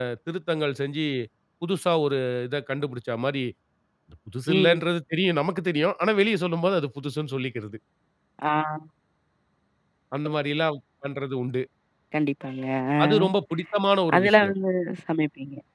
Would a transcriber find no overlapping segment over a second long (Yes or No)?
Yes